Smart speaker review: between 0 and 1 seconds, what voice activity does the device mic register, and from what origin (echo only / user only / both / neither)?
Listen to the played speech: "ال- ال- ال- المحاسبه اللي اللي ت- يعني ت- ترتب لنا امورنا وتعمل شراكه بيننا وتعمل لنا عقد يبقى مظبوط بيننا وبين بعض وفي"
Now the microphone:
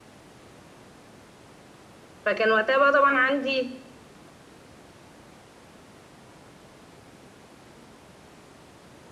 neither